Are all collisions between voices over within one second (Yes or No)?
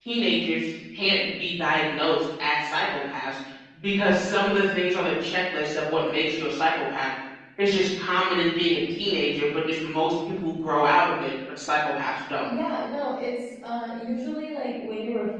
Yes